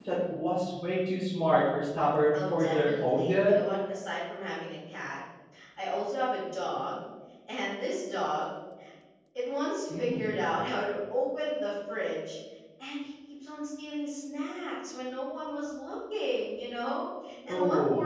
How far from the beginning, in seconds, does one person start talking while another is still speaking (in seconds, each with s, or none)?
2.3 s